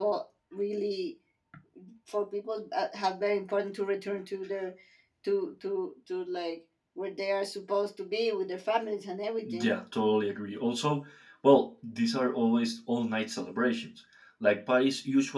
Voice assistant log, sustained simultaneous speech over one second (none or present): none